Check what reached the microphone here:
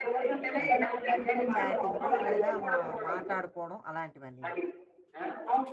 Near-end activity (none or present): present